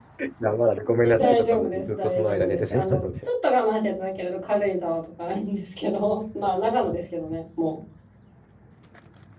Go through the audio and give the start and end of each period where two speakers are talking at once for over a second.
1.0-3.1

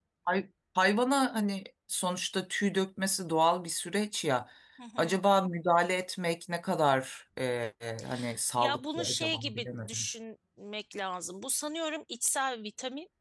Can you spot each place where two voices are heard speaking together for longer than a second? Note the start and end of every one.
8.6-10.1

